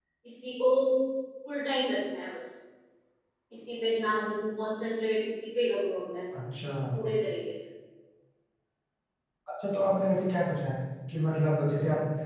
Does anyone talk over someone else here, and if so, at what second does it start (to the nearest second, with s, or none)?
none